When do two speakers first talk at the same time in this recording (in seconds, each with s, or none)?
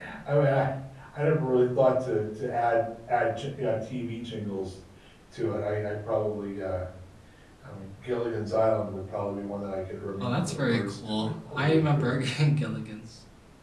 10.2 s